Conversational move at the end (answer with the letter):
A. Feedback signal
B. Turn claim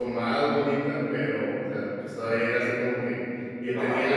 A